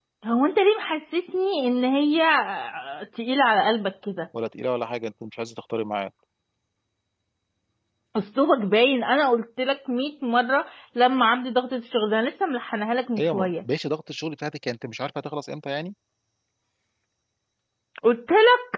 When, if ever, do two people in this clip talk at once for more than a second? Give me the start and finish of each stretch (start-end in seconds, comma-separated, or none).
none